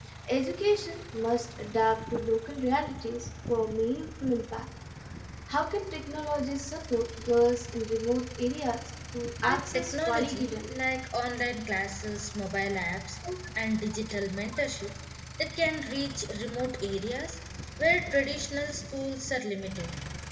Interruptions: present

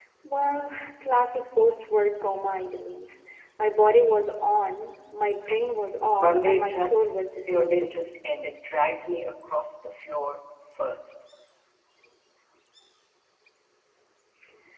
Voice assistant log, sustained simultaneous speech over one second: present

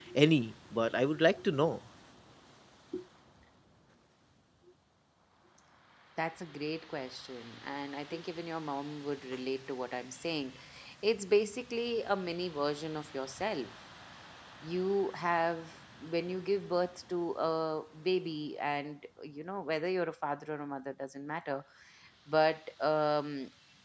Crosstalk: none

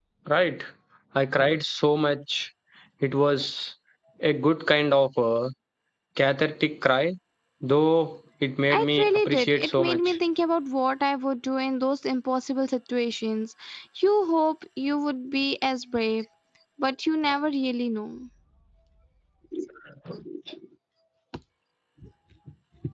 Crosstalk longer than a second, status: present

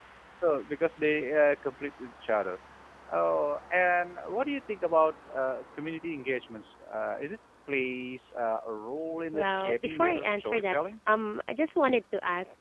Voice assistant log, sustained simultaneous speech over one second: present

